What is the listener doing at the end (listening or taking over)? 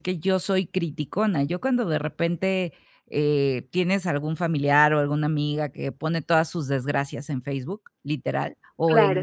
listening